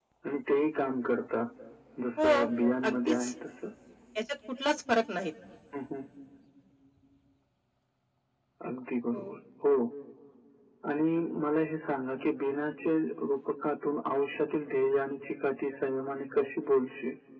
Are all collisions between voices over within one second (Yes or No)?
Yes